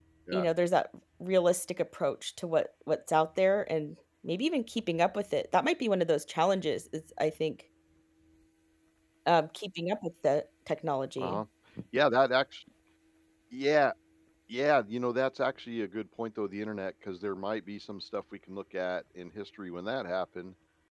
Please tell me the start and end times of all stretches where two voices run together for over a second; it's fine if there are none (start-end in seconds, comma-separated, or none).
none